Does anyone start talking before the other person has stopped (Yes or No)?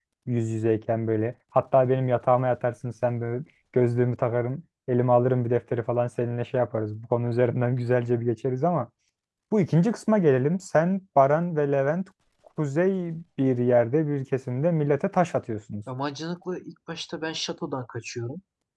No